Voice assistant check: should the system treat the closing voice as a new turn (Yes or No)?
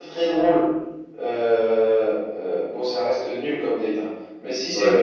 No